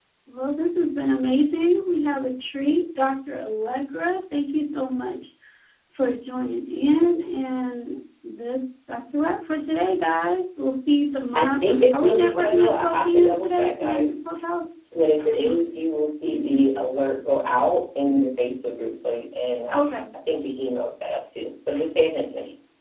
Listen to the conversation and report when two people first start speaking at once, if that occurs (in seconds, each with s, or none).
11.3 s